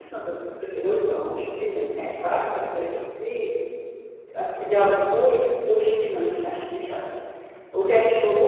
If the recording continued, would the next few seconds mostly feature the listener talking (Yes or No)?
No